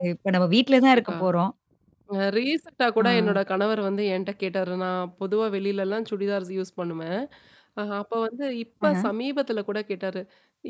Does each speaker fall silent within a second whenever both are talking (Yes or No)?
Yes